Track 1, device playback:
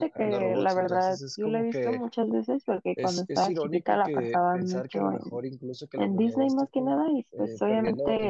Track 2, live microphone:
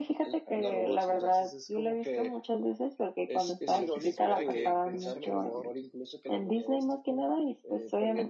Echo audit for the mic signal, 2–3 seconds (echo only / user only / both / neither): echo only